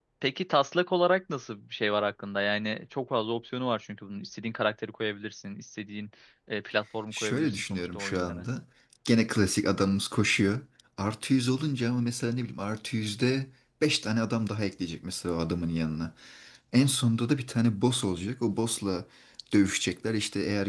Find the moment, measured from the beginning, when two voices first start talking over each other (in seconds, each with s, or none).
7.1 s